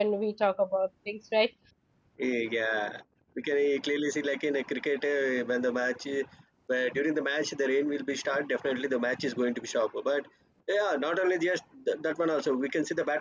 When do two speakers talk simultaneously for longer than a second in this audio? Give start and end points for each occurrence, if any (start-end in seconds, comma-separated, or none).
none